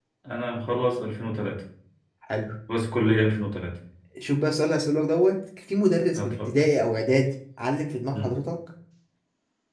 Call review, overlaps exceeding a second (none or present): none